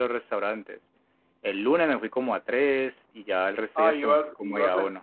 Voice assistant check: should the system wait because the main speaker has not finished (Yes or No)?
No